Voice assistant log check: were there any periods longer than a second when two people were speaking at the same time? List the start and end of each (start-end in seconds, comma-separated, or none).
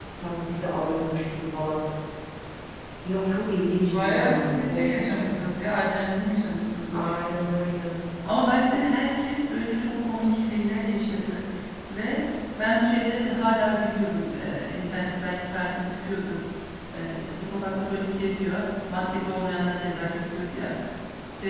4.0-5.3